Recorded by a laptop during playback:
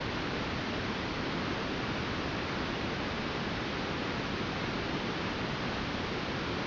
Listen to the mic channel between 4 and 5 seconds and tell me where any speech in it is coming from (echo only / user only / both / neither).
neither